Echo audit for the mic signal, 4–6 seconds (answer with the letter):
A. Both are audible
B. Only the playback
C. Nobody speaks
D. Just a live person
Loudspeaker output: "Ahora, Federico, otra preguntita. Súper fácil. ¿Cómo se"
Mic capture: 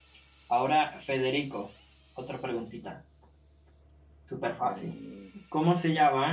A